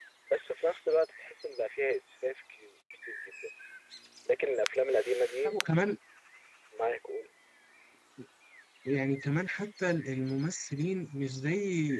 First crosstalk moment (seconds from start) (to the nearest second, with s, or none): none